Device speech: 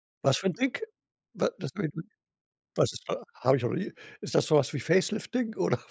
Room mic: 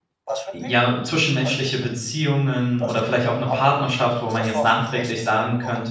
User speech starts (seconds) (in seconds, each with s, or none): 0.5 s